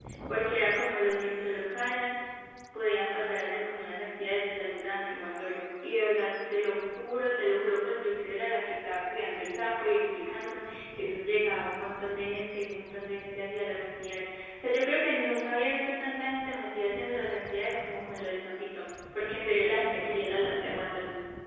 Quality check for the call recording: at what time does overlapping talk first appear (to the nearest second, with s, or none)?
none